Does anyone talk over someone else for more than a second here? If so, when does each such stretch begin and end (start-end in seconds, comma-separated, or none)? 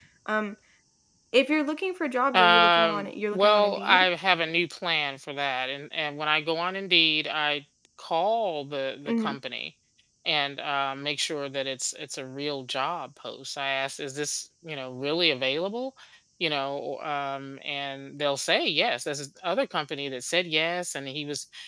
2.3-4.1